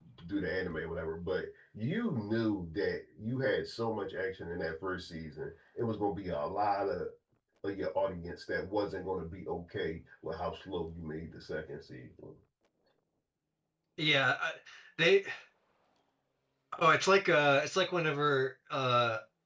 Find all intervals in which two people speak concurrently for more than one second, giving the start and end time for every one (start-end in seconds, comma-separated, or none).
none